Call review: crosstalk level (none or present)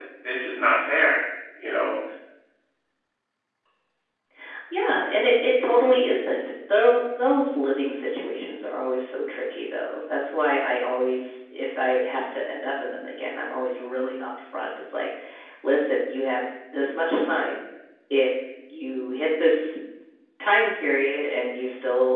none